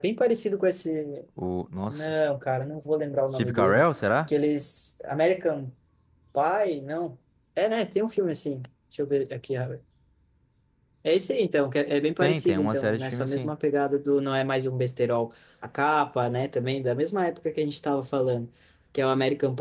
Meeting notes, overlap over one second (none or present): present